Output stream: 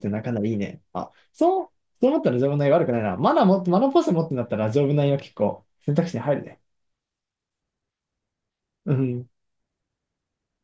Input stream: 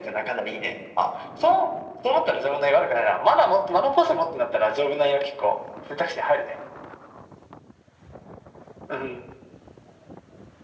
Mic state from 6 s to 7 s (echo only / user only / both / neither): echo only